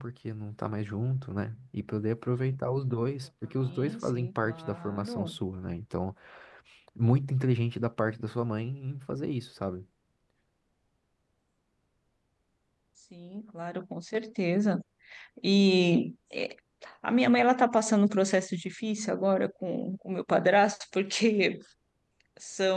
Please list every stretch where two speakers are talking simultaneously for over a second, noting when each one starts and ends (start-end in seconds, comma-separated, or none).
3.6-5.4